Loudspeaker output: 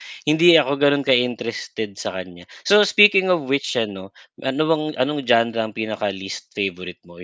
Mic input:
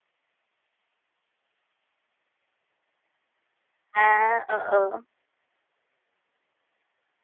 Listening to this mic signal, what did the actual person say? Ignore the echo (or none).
Ah, oo.